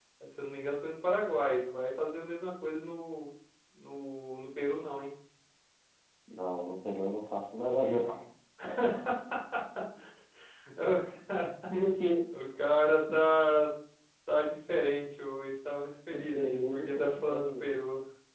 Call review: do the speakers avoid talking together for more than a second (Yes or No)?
No